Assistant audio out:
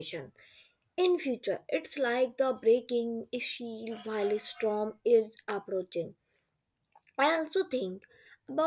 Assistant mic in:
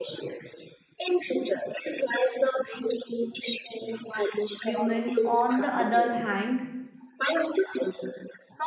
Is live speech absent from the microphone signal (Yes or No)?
No